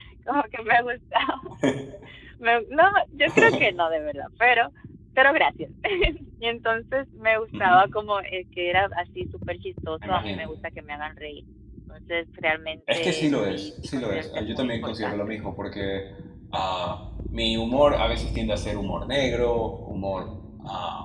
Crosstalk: present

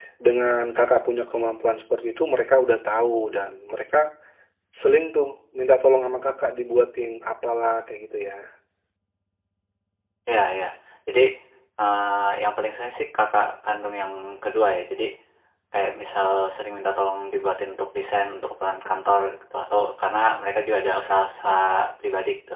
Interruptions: none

